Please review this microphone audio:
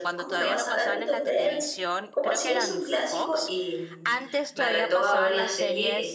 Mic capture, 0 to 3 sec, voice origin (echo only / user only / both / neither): both